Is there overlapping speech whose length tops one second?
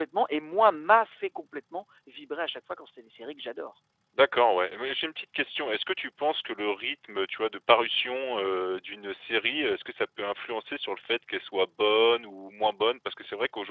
No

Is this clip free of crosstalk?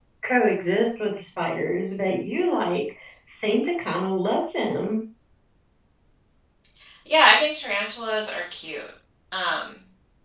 Yes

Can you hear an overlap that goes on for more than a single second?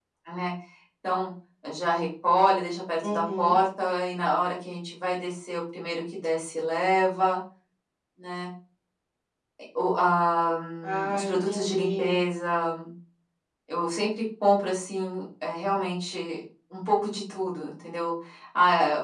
Yes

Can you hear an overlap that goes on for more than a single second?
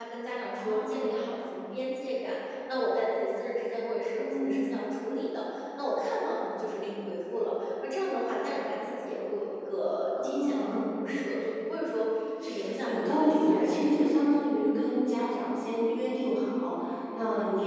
Yes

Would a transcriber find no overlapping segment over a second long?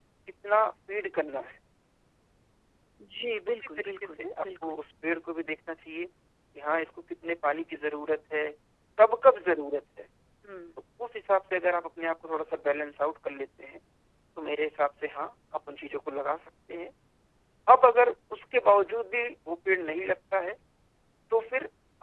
No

